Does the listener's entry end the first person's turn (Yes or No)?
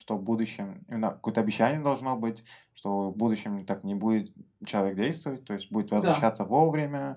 No